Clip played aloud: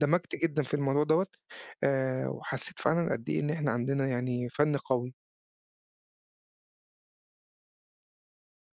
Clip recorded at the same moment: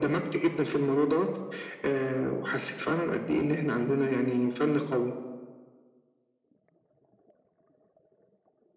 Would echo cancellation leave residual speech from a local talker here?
No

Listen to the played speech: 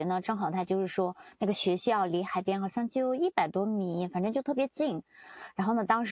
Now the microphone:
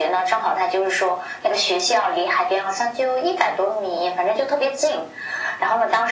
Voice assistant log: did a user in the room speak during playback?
No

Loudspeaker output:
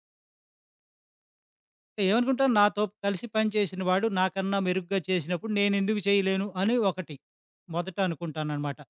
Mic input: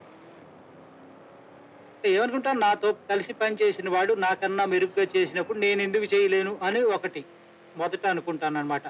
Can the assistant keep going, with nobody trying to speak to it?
Yes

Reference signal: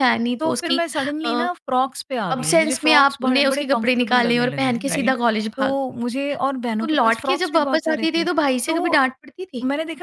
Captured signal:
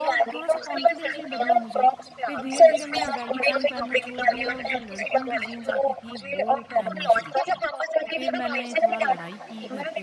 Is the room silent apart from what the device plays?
No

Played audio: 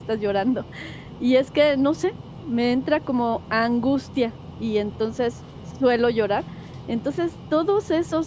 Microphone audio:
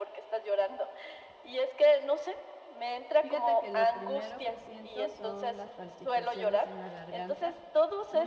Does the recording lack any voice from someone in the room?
No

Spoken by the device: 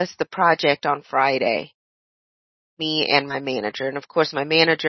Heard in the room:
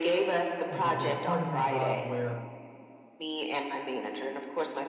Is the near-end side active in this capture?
Yes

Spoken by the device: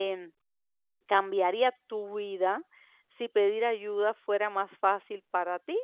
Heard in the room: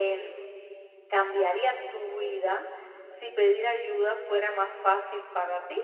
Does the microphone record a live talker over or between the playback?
No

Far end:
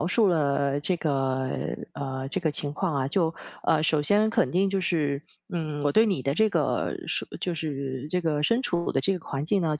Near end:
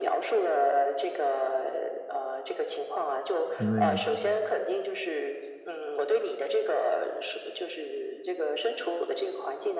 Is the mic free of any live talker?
No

